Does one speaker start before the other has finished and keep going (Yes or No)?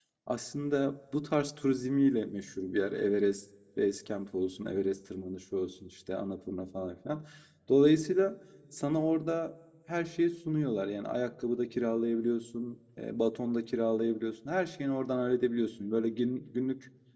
No